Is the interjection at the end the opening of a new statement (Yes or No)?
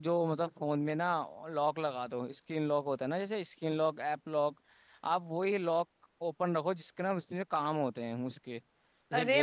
Yes